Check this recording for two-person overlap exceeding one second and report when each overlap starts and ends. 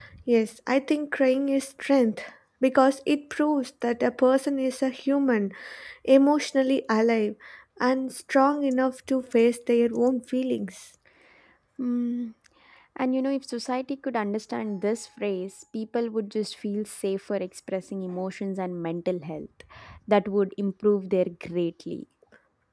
none

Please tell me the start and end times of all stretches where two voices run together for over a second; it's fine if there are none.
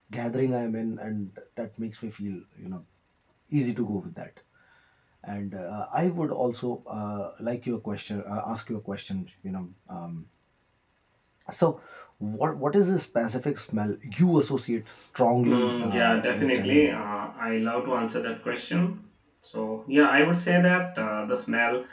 15.5-16.9

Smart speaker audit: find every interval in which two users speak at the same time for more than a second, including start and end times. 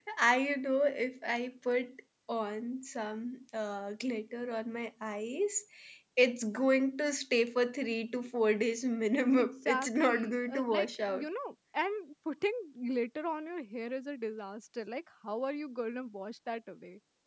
9.4-11.3

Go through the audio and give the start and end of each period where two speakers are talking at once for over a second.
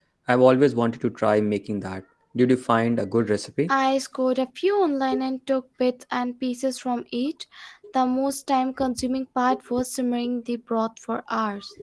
none

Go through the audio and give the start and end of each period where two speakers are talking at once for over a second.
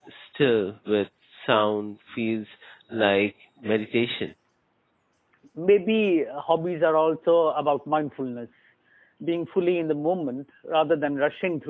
none

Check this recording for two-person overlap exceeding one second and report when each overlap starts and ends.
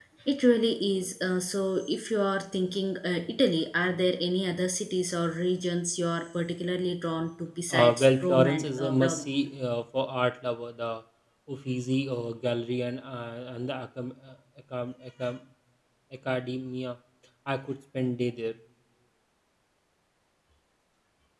7.7-9.3

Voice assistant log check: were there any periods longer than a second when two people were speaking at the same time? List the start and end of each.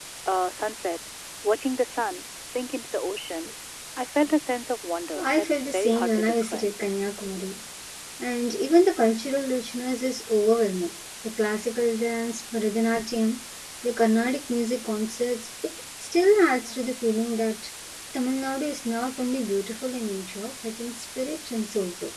5.2-6.7

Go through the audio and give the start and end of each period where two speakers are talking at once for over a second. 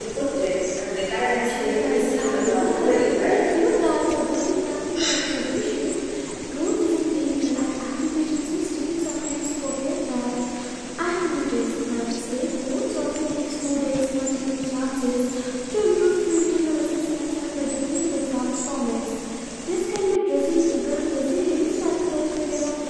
1.6-3.1

